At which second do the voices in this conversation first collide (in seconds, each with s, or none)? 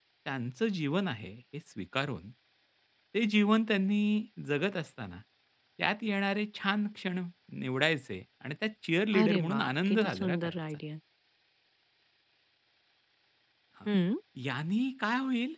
9.1 s